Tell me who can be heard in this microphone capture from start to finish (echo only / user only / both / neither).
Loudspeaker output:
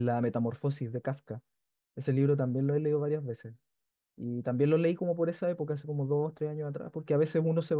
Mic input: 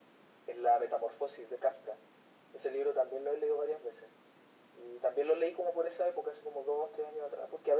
echo only